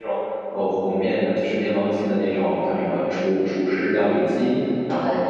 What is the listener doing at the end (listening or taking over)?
listening